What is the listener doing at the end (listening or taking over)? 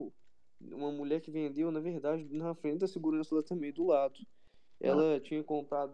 listening